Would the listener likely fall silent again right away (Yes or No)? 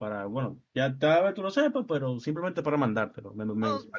No